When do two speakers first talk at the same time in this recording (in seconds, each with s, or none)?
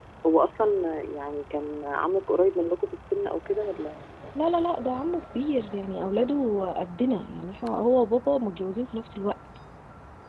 none